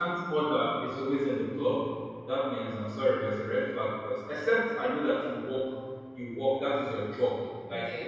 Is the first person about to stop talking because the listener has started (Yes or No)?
No